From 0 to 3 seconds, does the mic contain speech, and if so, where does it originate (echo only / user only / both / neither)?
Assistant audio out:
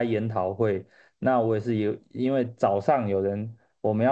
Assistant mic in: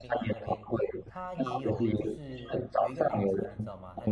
both